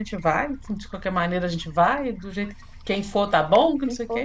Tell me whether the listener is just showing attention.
No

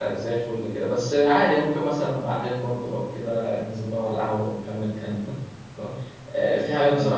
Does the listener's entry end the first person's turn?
No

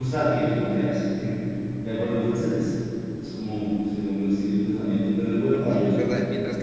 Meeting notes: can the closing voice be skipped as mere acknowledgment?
No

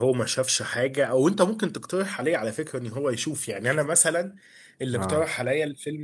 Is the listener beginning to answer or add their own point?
No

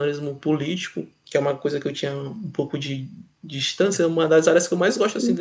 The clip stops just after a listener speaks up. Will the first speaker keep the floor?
Yes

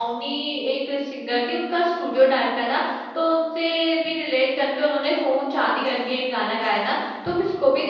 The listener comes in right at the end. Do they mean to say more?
No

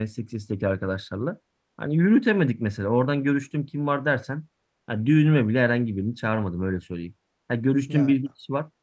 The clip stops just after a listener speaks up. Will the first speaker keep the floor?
Yes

